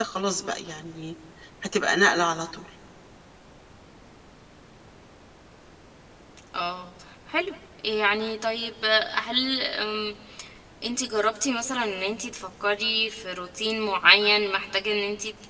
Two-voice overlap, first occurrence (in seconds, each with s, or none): none